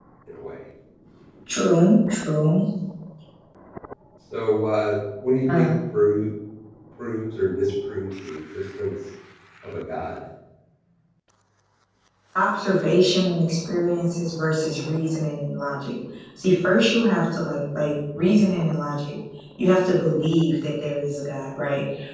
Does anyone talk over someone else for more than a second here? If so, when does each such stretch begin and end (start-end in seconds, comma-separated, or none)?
none